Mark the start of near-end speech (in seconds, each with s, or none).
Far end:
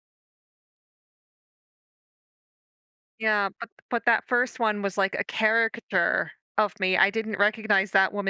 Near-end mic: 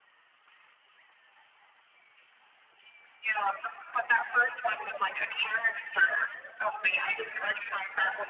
none